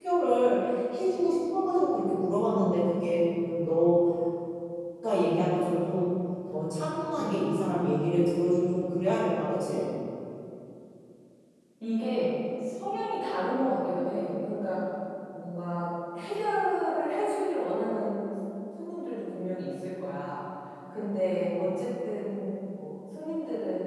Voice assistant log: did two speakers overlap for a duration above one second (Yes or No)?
No